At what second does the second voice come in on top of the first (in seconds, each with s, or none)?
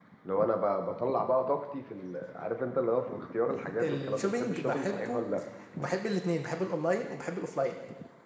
3.8 s